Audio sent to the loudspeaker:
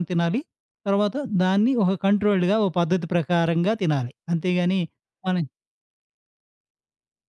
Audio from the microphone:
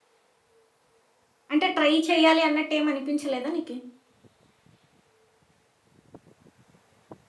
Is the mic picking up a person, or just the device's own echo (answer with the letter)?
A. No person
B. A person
B